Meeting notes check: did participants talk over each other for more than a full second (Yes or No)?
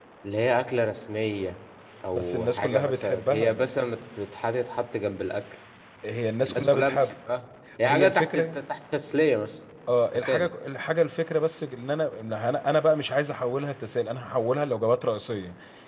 Yes